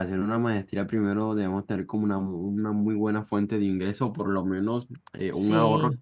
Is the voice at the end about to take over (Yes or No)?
No